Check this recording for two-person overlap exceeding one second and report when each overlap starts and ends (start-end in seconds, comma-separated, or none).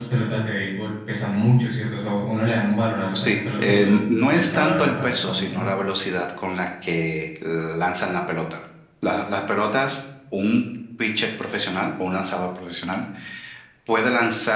3.1-5.7